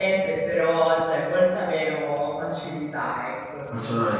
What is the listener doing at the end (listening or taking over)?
taking over